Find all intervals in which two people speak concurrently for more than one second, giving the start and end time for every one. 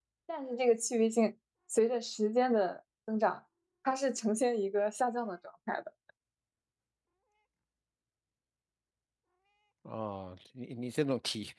none

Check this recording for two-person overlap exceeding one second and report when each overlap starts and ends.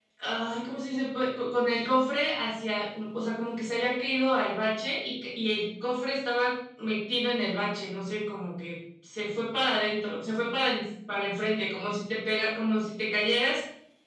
none

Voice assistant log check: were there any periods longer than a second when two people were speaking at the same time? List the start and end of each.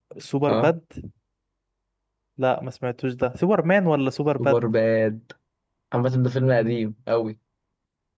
none

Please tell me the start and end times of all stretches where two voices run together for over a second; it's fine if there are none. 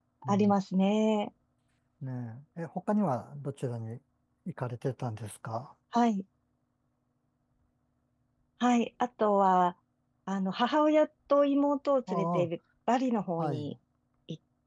none

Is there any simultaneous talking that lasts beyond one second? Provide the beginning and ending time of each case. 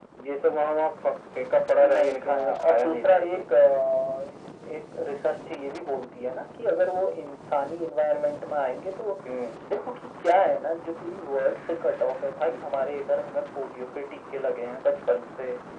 1.8-3.4

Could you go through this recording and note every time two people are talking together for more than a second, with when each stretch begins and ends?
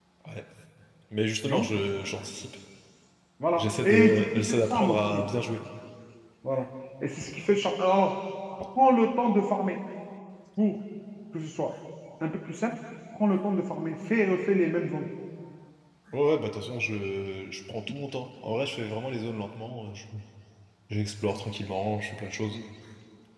3.5-5.2

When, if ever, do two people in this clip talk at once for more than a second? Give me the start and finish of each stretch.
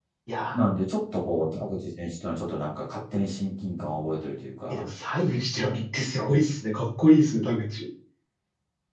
none

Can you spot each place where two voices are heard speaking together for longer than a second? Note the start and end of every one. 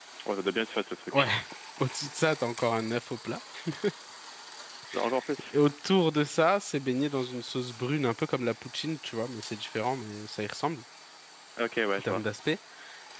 none

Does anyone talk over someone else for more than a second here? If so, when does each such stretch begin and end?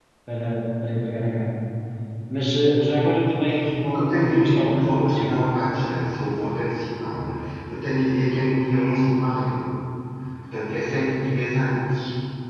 3.9-5.5

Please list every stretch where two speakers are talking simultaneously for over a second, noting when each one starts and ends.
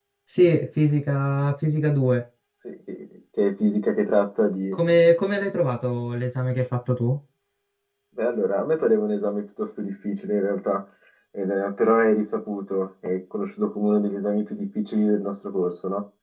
none

